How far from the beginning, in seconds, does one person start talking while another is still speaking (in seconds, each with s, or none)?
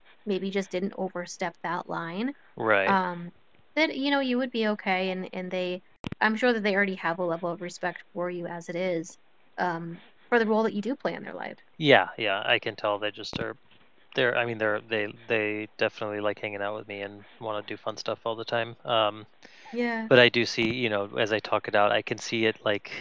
none